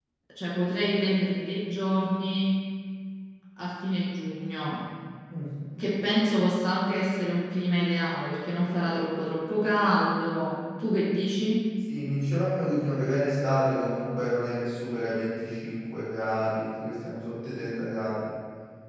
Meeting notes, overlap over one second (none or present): none